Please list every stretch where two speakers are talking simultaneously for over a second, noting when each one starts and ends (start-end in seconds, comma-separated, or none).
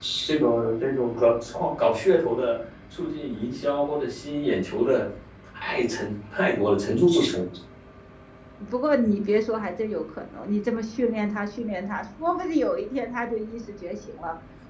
none